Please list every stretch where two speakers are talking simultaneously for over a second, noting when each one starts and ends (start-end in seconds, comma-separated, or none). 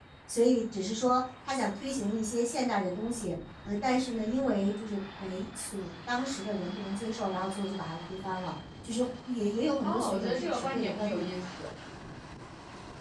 9.8-11.5